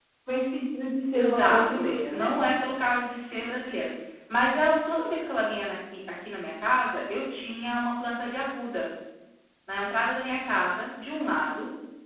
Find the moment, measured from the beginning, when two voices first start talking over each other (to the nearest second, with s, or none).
1 s